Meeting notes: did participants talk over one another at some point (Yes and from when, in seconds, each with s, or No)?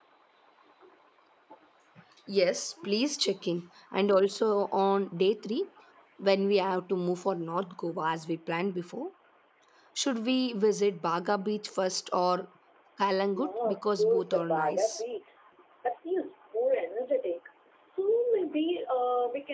Yes, from 13.3 s